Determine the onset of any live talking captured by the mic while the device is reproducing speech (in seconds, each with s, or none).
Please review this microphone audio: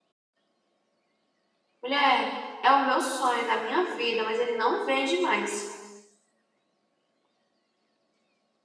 1.8 s